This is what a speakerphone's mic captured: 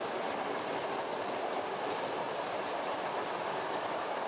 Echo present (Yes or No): No